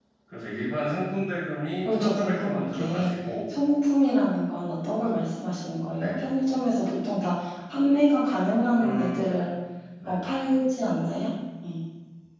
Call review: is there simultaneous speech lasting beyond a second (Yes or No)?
Yes